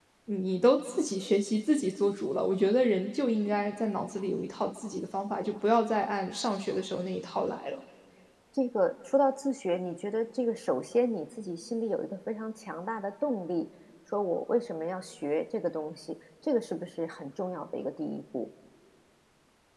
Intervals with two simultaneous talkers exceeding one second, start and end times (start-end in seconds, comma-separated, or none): none